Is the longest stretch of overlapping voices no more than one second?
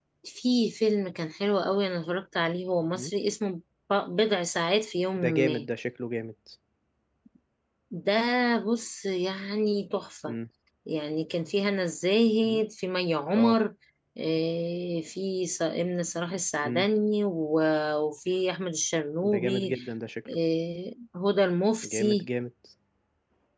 Yes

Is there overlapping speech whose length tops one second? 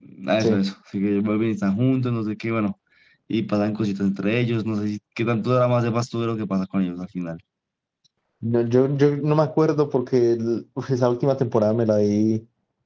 No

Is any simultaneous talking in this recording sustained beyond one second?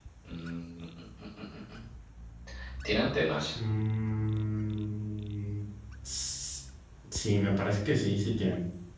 No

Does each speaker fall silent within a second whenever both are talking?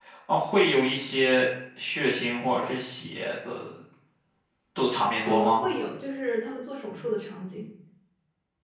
Yes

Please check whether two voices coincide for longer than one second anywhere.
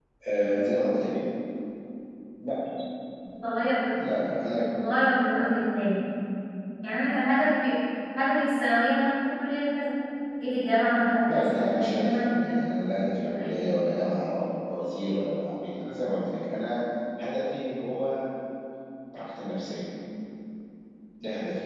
Yes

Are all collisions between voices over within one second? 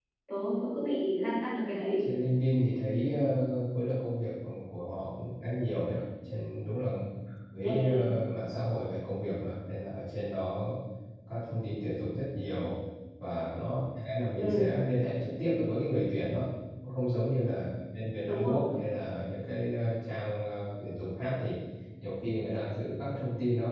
Yes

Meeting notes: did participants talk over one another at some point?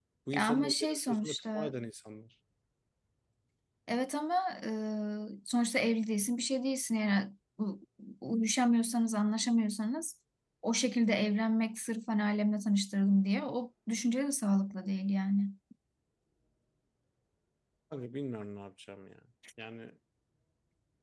Yes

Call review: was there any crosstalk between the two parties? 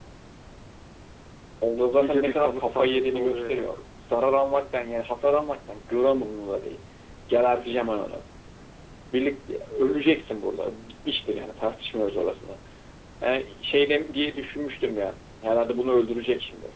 Yes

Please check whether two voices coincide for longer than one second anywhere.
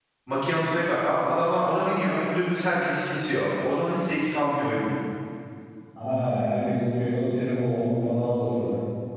No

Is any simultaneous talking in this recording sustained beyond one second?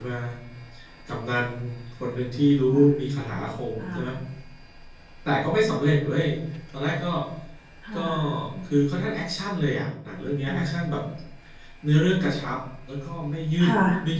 No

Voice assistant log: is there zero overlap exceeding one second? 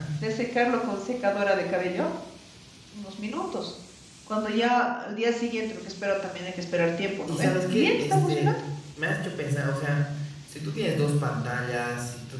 No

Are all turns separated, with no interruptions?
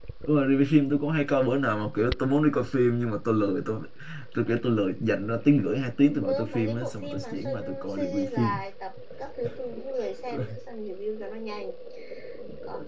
No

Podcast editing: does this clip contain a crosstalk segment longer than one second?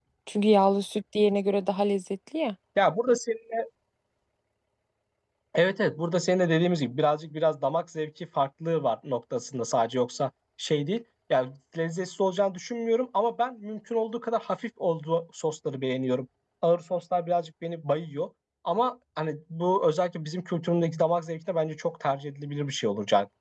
No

